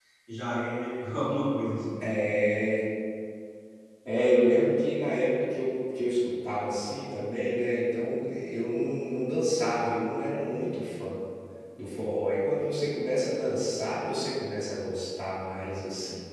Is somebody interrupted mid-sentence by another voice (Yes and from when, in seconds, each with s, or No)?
No